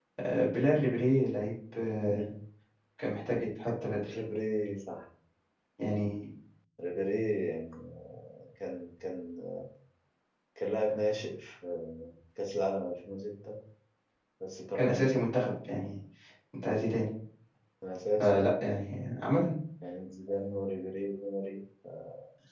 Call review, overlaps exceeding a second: none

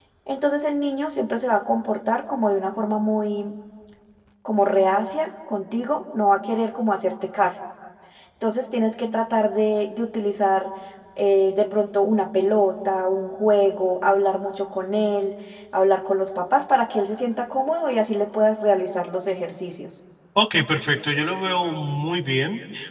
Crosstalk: none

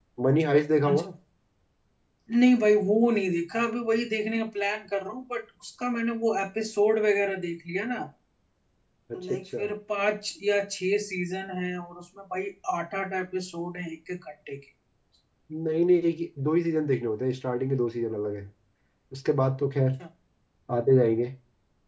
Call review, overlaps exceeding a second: none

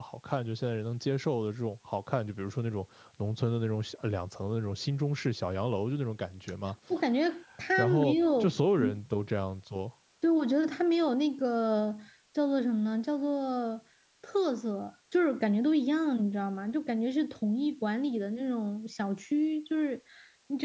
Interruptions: present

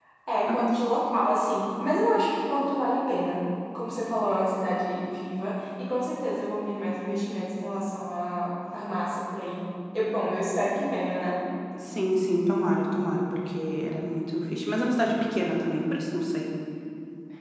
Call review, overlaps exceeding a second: none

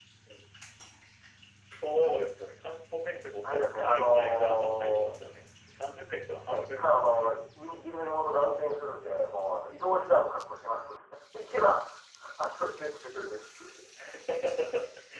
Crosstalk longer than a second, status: present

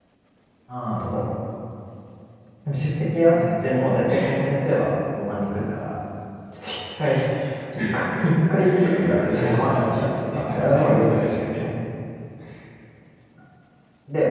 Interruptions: present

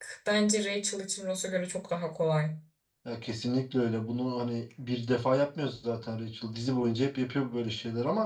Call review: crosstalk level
none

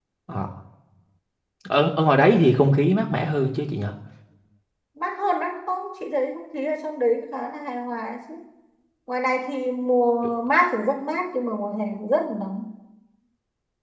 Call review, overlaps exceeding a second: none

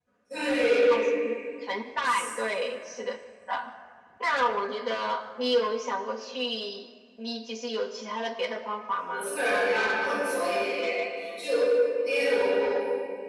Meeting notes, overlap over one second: none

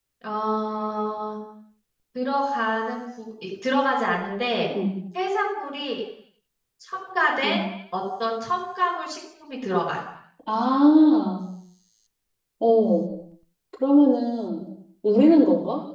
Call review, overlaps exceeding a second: none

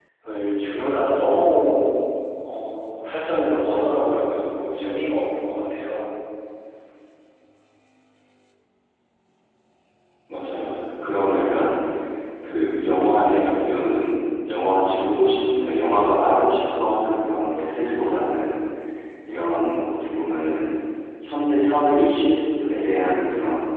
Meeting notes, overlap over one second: none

